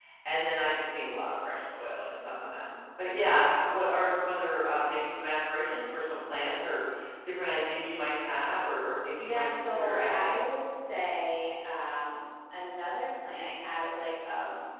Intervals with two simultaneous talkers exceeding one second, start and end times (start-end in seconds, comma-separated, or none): 9.2-10.4